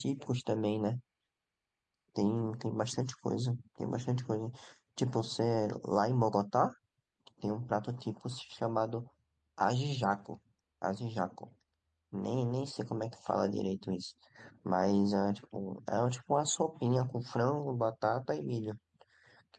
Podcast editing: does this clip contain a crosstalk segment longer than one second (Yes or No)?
No